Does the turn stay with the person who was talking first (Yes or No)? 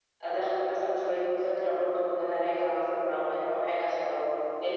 Yes